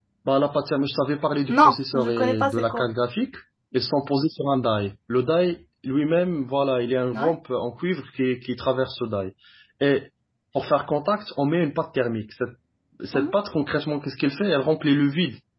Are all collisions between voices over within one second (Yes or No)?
No